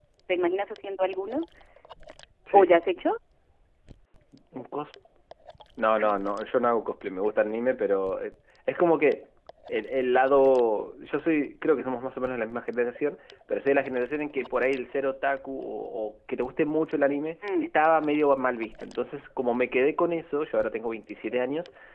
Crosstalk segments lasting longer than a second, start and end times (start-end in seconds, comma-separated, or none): none